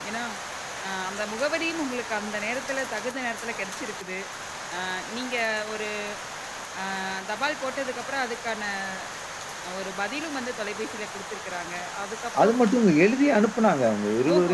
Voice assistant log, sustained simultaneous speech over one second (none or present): none